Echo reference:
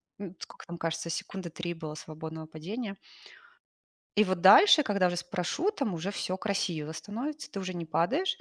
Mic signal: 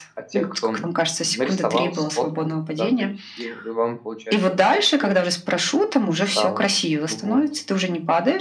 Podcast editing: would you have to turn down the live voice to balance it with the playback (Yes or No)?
No